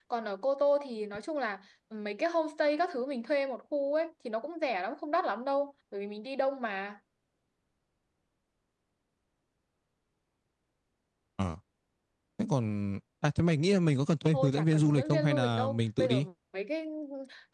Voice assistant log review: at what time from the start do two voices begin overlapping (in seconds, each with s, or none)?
14.3 s